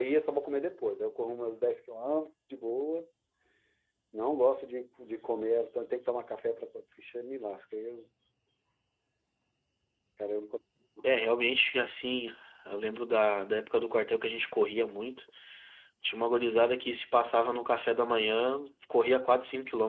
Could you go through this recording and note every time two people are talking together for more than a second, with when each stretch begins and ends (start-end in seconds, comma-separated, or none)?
none